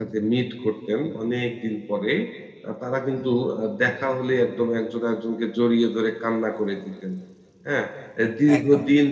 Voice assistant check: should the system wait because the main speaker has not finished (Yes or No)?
Yes